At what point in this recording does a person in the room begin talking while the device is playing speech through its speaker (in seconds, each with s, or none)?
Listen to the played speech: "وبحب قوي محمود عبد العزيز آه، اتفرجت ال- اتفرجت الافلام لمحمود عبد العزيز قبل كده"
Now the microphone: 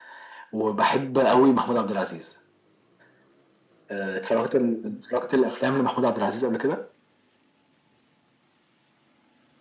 none